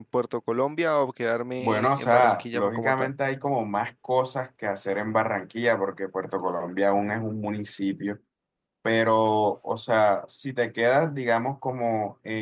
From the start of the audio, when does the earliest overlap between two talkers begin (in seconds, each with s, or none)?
1.6 s